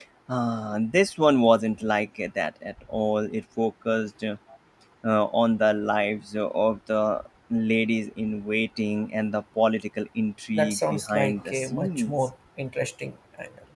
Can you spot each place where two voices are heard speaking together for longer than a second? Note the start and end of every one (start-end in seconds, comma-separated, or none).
10.6-12.2